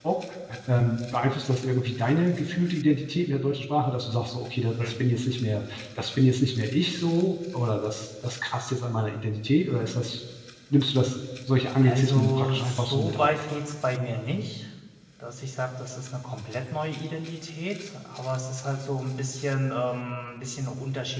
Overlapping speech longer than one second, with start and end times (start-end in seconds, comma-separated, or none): 11.8-13.3